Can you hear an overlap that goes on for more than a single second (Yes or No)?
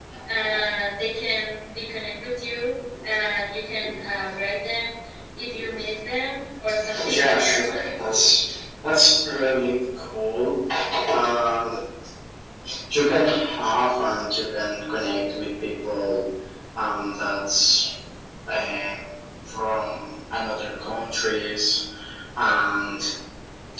Yes